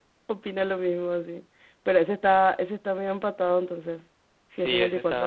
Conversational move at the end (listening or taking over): taking over